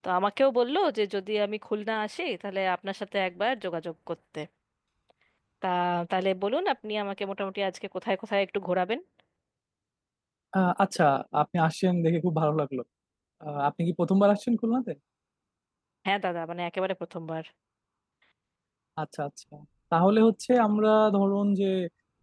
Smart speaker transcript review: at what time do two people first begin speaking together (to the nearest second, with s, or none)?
none